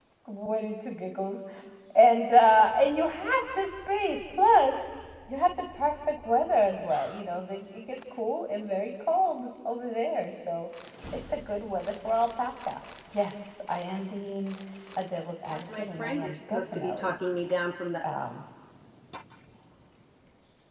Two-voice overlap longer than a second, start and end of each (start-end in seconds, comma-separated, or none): 15.5-17.1